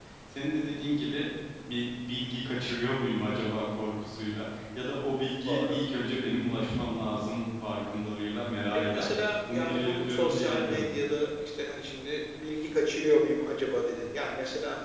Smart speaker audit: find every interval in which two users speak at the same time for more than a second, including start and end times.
9.5-10.9

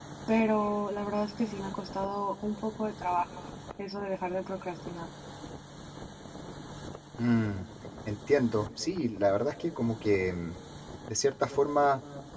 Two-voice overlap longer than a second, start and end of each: none

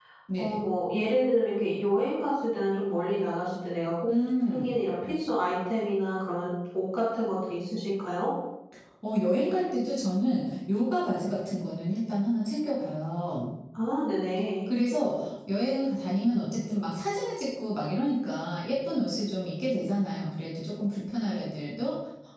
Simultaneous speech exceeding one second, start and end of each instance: none

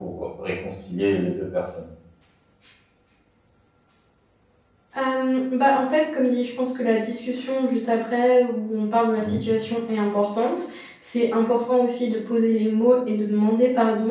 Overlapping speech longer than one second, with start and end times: none

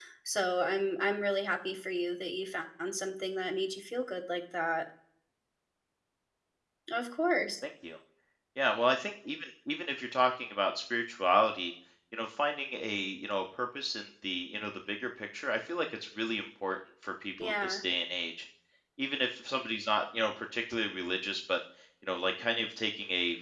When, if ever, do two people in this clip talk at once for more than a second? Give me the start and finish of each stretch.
none

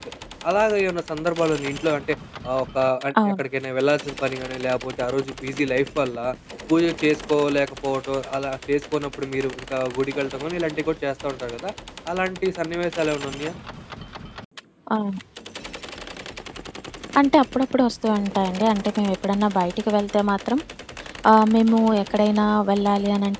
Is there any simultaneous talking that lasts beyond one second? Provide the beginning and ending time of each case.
none

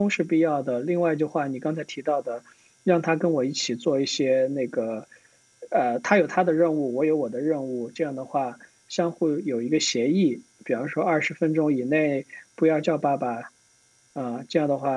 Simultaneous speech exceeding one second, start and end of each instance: none

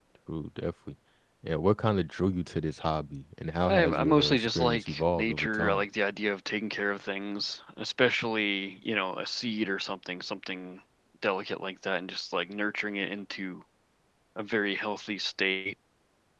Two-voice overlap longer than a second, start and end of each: 3.6-5.8

